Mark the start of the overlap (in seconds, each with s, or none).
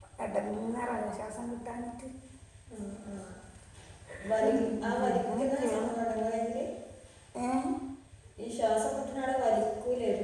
4.5 s